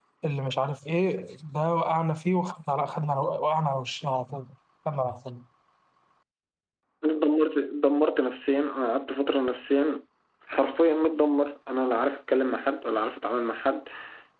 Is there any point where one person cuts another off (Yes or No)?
No